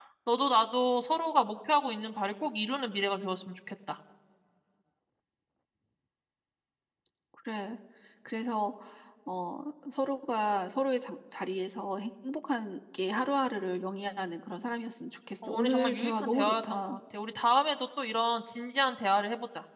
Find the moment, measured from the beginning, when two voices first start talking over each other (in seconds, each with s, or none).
15.4 s